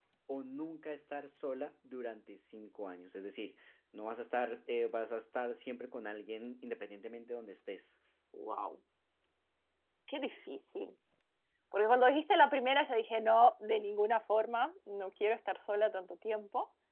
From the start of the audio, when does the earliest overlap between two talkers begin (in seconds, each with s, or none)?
none